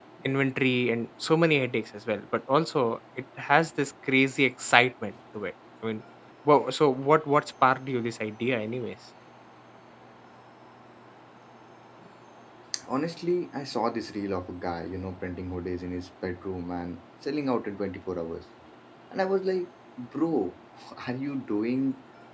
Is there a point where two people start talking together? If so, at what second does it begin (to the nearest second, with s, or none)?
none